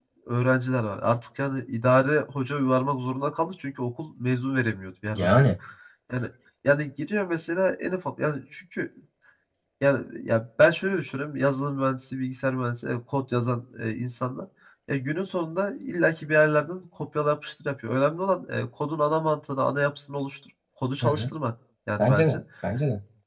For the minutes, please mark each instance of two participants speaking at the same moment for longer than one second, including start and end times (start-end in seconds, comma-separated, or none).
none